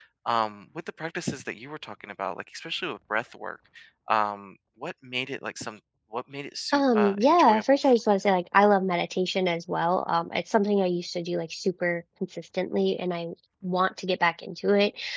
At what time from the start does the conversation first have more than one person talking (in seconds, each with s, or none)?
6.7 s